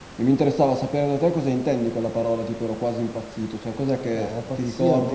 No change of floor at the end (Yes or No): No